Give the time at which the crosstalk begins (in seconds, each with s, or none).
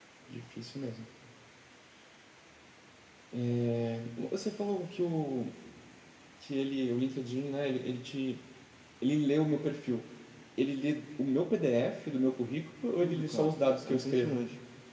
13.0 s